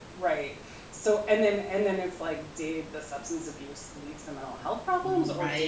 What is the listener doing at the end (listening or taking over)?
listening